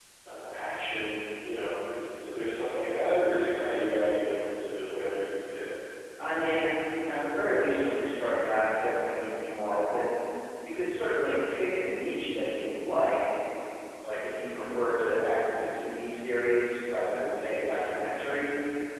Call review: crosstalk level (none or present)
none